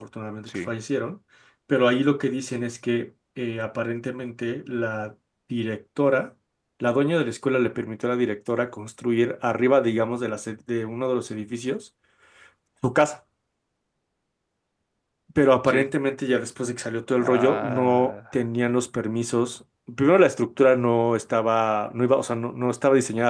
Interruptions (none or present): present